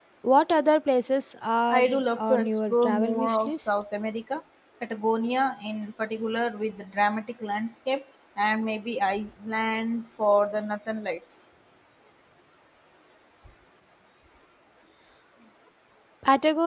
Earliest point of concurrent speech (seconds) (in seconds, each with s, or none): 1.7 s